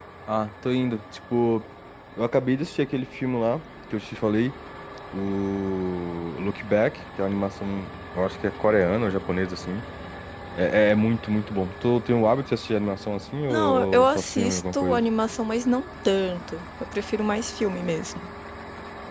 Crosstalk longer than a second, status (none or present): present